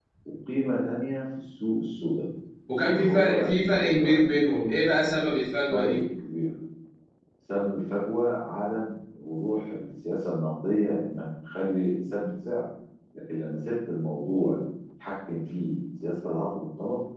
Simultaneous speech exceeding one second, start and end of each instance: 2.8-4.2

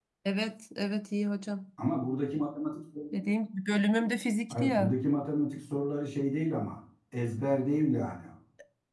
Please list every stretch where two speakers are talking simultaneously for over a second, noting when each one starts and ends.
none

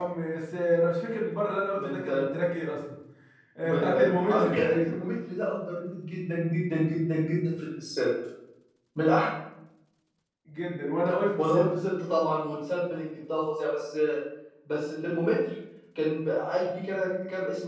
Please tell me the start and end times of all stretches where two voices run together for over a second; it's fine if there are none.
3.6-5.0

